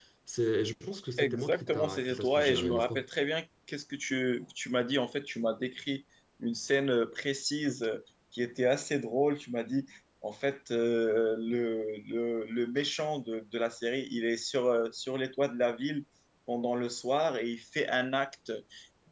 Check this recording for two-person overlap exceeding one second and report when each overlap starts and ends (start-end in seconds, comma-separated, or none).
1.2-3.0